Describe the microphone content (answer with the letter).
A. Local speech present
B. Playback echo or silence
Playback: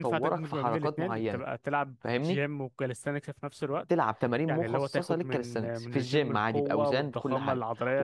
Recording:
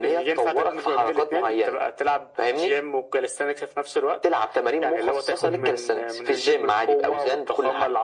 A